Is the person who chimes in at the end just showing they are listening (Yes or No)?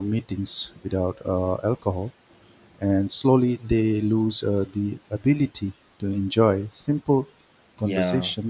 Yes